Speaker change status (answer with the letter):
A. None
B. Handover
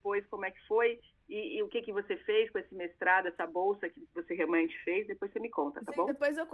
B